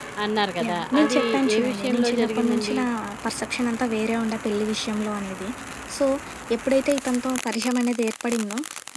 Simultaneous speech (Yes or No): Yes